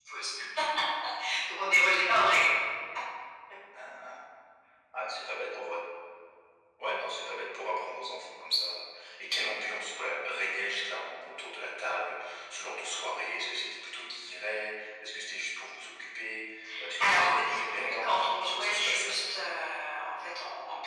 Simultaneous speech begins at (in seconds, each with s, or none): 17.0 s